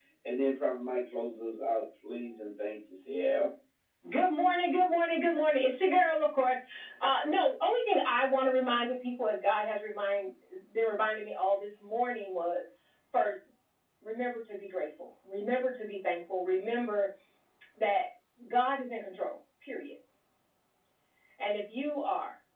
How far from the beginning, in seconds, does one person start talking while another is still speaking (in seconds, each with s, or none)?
none